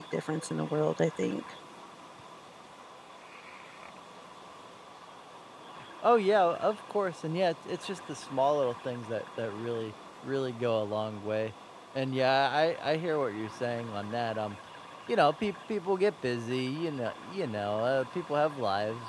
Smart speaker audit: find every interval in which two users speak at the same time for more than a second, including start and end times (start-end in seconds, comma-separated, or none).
none